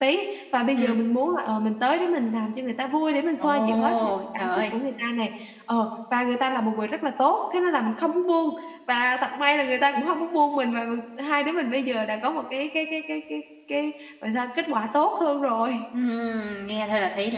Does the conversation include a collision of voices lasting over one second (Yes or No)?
Yes